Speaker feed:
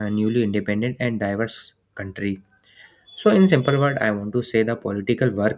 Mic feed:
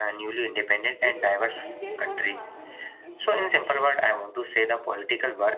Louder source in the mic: echo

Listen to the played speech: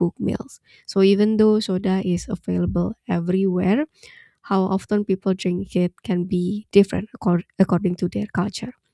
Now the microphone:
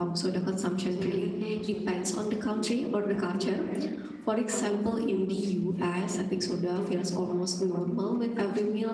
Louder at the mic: user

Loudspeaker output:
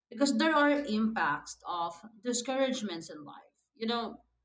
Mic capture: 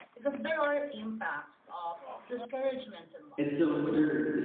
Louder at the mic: user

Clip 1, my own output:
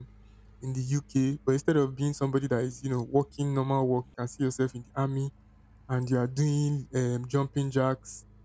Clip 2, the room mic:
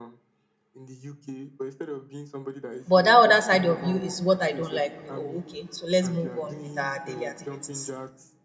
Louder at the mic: user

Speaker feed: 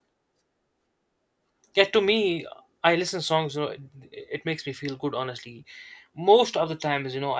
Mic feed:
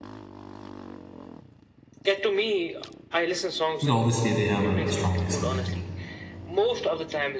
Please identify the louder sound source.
user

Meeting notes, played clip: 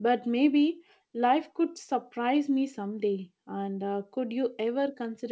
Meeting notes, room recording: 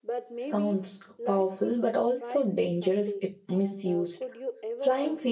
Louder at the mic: user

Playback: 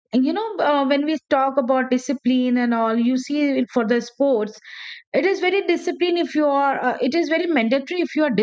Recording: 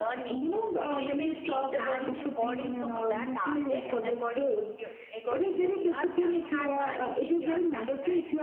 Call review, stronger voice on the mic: echo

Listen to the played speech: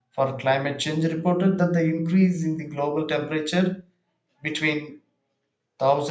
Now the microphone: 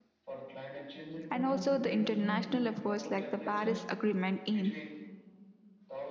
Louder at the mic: user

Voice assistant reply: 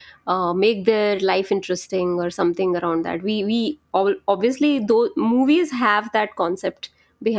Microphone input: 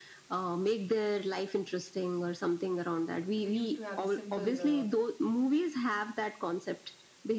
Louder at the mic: echo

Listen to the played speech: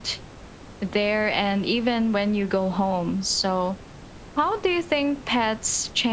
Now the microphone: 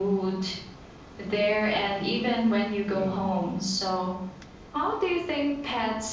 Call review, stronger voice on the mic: echo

